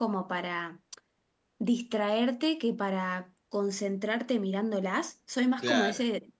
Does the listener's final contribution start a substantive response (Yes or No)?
No